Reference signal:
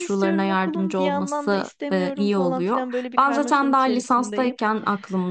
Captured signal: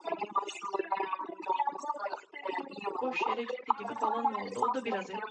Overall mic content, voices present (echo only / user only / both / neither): both